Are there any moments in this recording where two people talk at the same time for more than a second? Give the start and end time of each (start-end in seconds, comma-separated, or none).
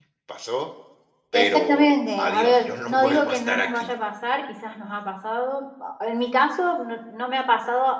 1.3-3.9